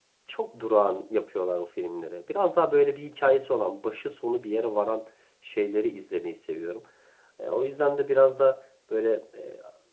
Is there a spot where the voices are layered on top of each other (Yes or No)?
No